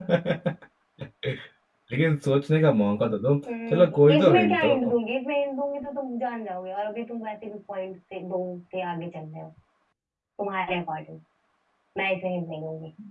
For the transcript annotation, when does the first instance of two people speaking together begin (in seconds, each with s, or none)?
3.5 s